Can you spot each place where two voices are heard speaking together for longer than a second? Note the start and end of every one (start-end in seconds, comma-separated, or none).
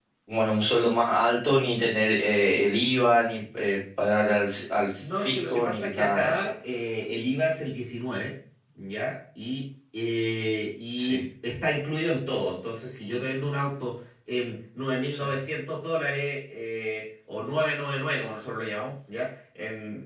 5.0-6.4